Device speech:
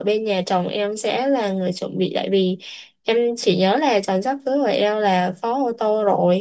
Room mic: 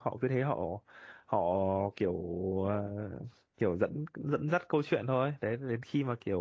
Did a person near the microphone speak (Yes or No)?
Yes